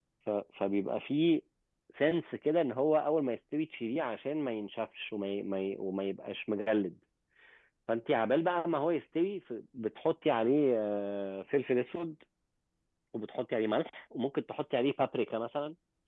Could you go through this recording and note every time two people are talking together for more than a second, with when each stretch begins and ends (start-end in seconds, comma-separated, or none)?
none